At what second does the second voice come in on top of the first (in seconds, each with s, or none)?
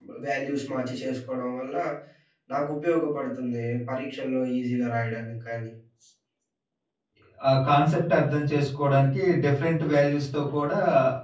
none